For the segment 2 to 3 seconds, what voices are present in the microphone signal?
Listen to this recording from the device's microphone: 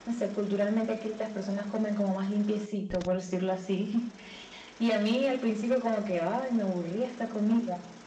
echo only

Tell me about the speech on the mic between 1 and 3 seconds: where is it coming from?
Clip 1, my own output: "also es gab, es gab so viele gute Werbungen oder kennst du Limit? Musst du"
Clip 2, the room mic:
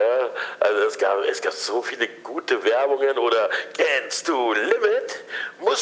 echo only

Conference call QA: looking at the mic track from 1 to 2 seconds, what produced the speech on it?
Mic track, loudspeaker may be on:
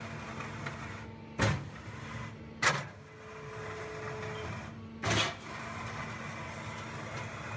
neither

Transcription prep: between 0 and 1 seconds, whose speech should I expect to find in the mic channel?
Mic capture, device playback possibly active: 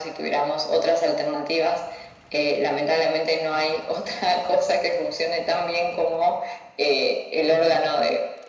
echo only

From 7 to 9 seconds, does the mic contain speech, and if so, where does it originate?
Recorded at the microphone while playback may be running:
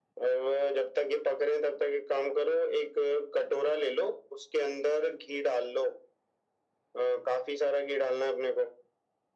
echo only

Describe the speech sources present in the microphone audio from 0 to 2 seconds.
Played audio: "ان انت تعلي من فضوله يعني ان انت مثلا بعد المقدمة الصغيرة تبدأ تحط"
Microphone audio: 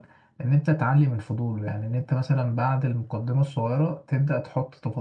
echo only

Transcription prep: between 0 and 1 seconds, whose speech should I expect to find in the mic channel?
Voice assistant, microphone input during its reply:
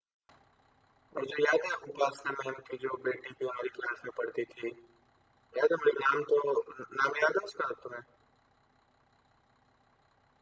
neither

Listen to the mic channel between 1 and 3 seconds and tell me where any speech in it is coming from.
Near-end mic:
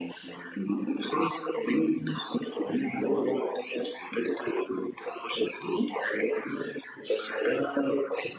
echo only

